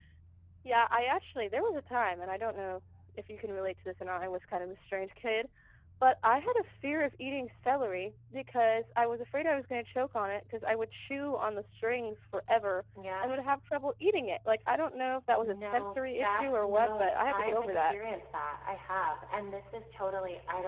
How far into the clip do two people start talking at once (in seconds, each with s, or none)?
15.4 s